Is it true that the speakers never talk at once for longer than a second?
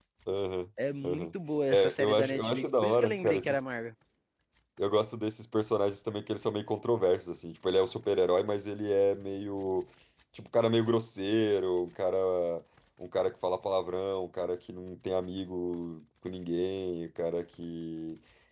No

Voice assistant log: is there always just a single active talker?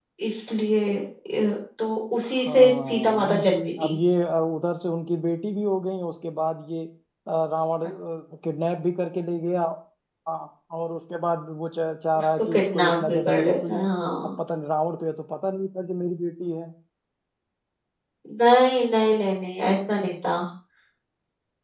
No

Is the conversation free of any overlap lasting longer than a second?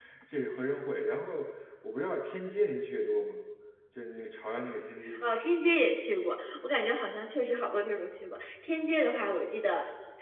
Yes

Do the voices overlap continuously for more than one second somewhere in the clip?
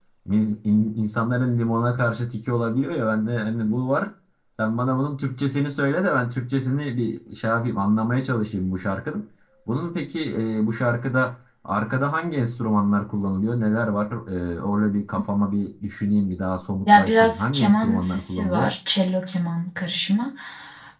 Yes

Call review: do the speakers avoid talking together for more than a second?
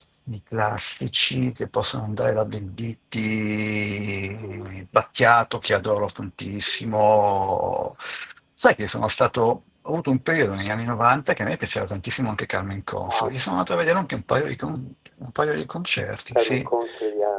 Yes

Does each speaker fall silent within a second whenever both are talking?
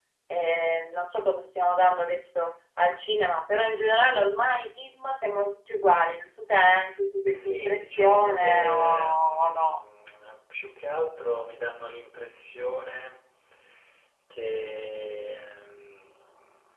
No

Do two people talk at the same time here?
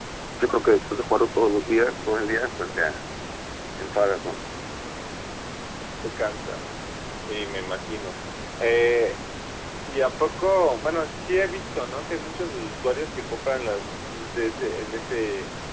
No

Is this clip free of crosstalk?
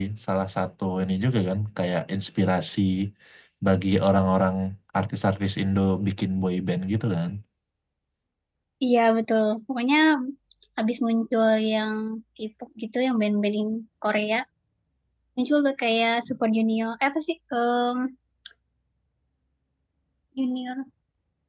Yes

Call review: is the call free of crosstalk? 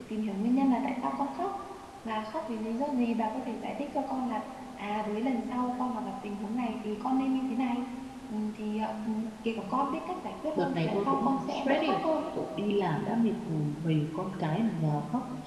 No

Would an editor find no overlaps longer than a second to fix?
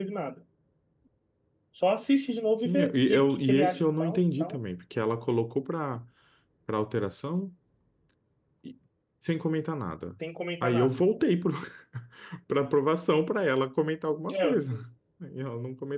No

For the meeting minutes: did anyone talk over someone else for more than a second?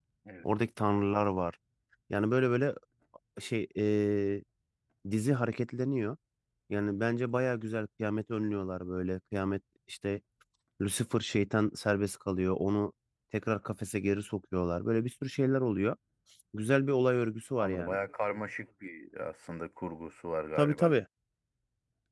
No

